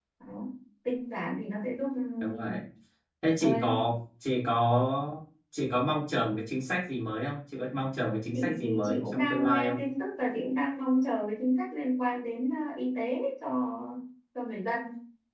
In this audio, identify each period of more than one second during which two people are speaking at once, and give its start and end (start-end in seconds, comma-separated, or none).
8.3-9.8